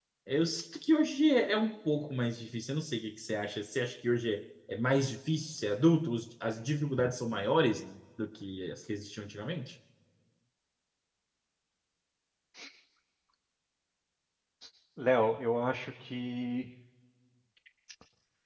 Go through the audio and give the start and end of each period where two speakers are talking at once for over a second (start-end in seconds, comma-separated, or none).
none